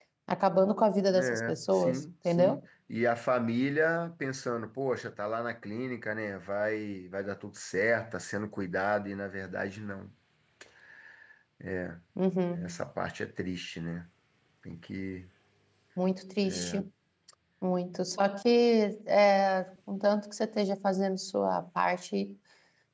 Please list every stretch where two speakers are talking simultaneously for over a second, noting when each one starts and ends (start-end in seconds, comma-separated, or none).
1.2-2.6